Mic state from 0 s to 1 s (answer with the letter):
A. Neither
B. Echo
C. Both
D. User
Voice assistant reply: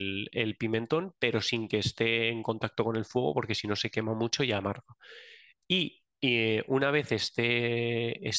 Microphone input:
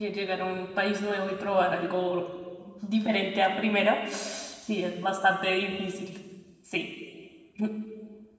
D